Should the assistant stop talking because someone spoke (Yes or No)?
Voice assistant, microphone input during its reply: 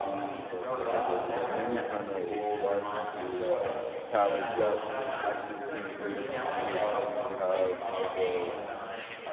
Yes